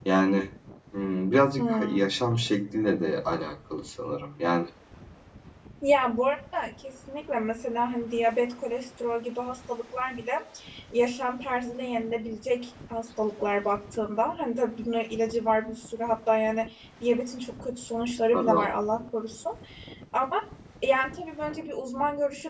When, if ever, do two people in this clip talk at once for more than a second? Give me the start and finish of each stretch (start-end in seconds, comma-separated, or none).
none